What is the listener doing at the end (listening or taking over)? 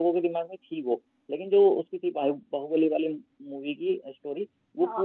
taking over